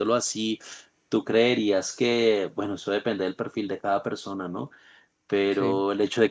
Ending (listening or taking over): listening